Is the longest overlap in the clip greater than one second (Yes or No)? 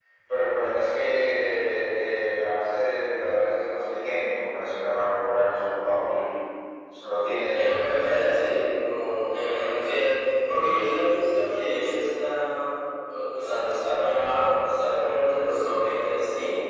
No